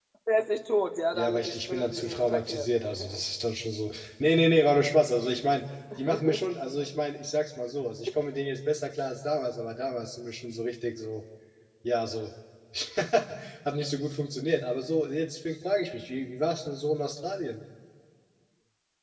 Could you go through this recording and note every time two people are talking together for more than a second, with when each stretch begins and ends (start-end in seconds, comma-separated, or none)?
1.1-3.2